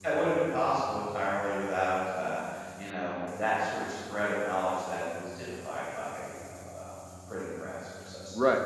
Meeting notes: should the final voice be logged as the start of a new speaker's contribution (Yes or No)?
Yes